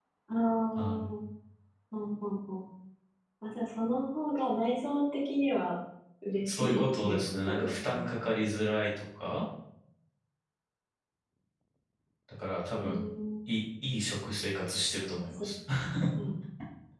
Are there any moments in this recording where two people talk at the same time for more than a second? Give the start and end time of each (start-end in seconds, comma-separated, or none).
6.4-8.2